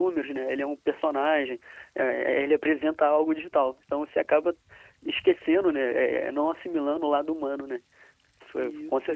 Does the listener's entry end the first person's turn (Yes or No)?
Yes